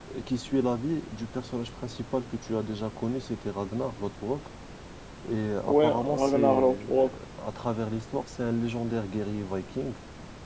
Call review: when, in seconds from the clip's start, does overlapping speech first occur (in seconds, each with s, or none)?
5.6 s